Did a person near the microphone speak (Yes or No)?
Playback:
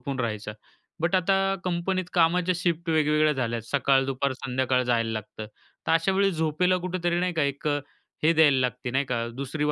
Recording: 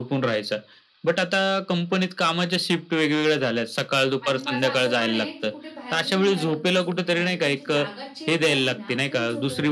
Yes